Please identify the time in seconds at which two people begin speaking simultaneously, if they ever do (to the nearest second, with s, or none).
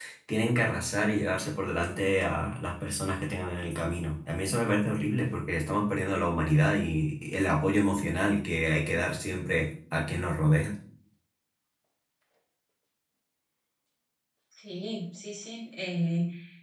none